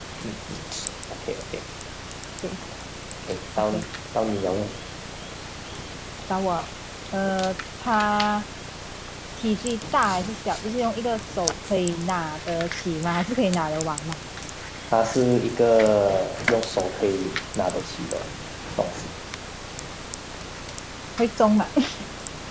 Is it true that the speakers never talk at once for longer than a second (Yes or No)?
Yes